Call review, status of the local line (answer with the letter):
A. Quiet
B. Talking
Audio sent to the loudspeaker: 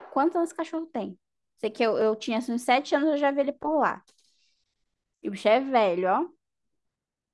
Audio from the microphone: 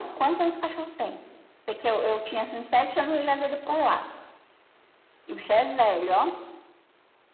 A